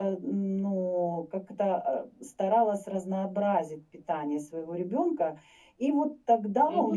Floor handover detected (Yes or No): Yes